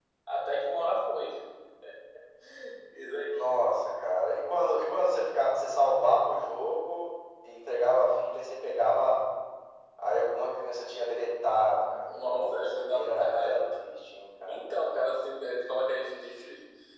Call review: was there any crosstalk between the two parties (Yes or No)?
Yes